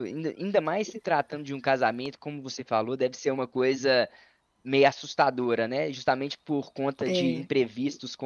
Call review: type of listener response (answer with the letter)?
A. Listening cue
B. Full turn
A